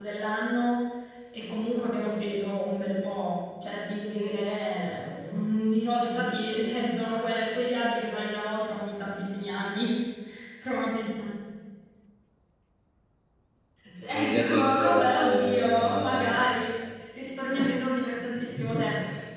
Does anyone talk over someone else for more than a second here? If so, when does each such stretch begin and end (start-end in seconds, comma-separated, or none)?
14.1-16.4